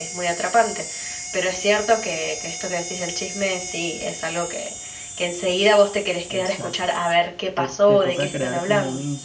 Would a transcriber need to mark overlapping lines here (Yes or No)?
Yes